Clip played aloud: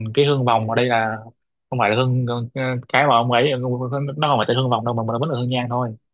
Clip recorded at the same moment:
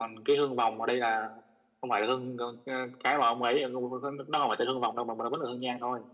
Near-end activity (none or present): none